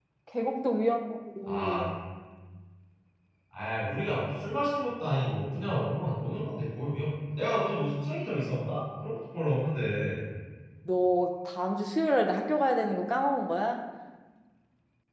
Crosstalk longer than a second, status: none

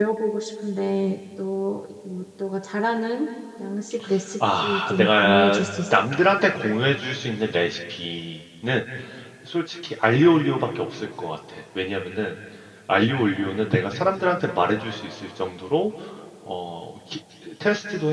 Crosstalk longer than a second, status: present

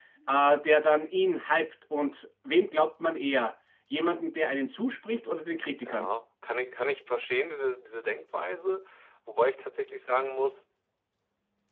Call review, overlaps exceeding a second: none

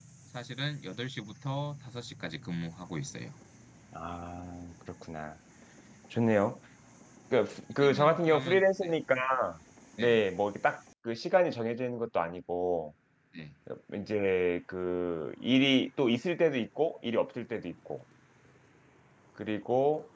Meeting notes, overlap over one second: present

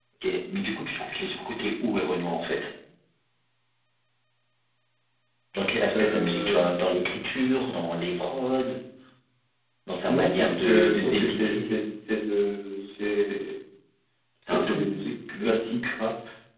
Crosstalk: present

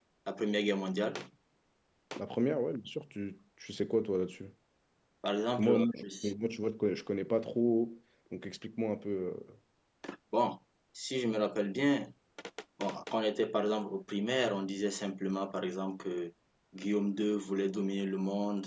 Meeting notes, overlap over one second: none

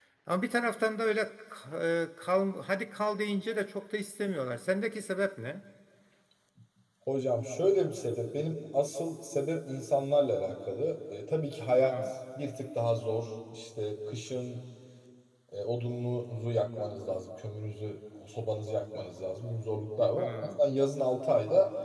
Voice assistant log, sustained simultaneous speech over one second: none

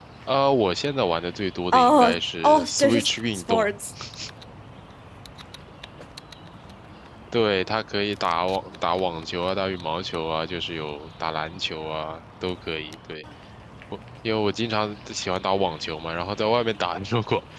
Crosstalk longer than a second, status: present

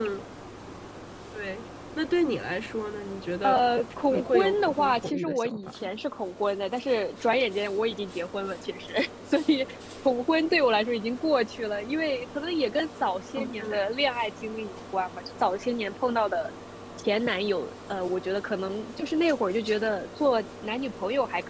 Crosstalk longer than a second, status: present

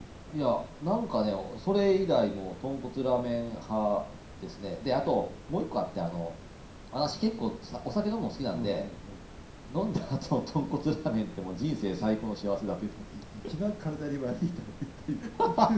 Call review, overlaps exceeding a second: none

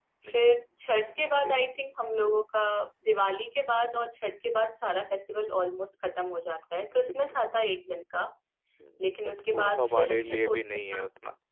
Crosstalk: present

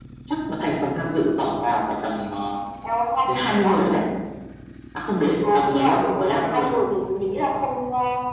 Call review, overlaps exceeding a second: present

